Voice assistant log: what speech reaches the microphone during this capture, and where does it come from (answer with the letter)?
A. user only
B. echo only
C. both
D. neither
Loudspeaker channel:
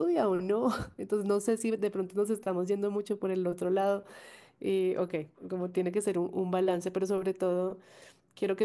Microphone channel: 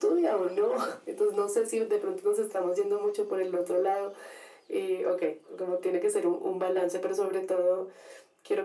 B